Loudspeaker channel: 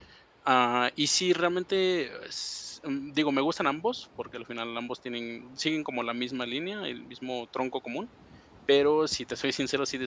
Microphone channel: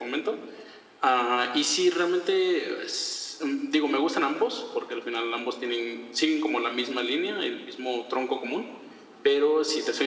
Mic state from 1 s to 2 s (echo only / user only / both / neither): echo only